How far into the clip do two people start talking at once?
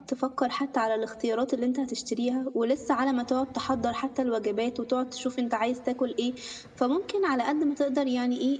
none

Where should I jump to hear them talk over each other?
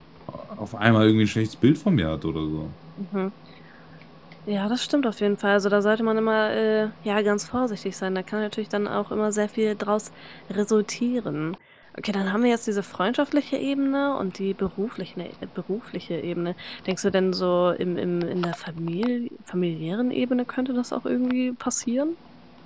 none

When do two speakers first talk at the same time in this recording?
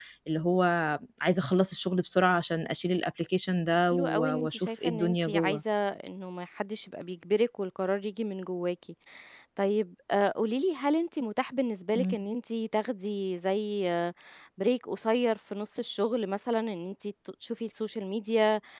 3.9 s

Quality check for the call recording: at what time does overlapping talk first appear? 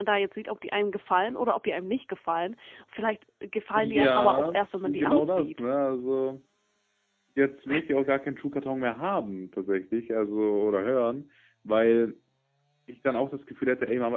3.8 s

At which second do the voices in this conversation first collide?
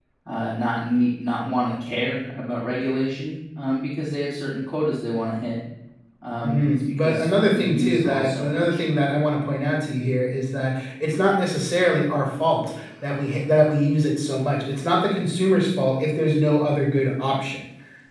6.4 s

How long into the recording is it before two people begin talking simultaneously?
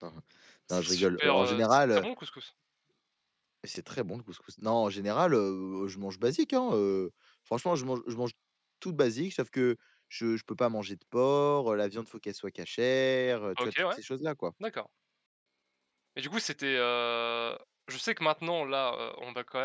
0.7 s

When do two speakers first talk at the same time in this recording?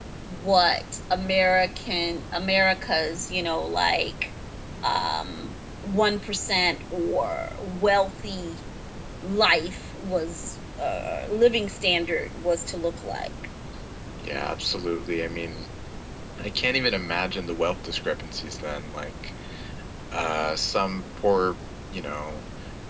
none

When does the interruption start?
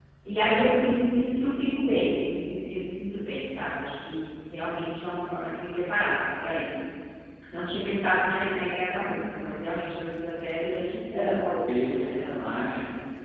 11.1 s

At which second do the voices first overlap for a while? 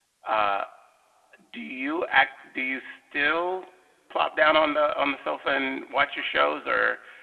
none

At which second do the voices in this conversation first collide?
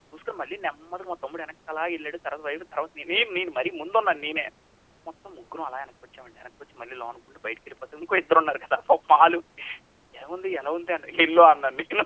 none

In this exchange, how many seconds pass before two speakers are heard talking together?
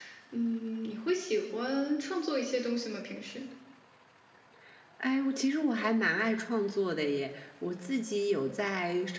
none

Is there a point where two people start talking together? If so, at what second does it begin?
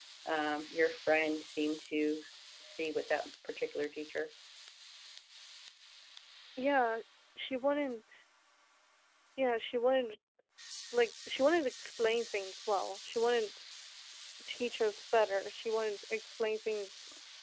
none

